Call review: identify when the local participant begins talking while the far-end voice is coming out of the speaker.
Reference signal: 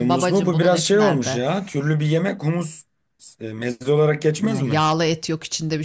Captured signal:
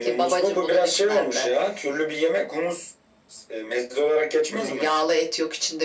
none

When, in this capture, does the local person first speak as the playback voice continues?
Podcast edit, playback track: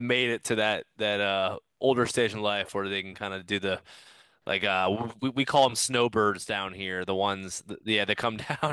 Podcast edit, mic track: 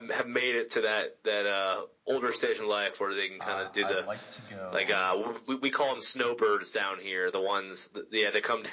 3.4 s

